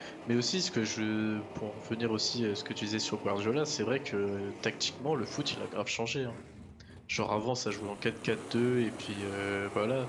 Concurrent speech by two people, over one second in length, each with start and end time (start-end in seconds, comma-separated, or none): none